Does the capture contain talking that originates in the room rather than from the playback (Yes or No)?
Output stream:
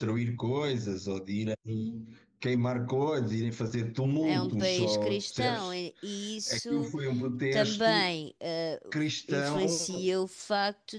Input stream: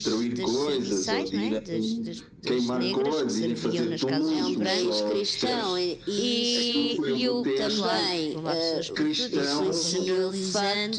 Yes